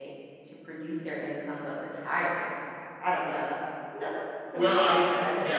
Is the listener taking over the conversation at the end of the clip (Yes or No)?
Yes